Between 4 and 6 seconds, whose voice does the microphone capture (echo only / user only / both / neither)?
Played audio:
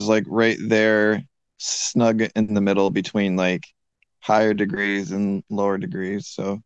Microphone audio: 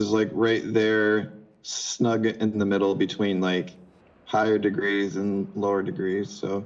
echo only